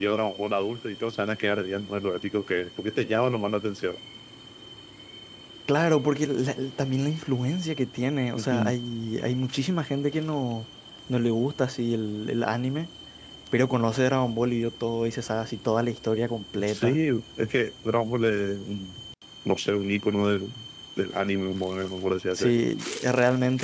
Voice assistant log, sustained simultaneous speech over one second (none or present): none